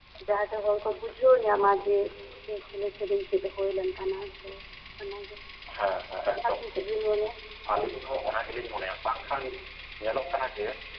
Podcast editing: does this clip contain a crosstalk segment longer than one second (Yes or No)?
No